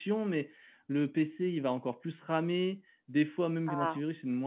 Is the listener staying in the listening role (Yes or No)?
Yes